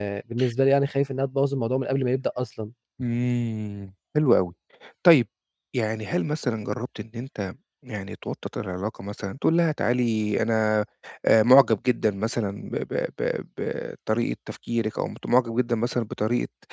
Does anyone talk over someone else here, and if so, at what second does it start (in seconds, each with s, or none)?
none